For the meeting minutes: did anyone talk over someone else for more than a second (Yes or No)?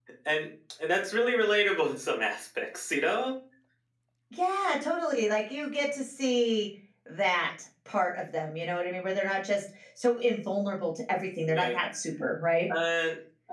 No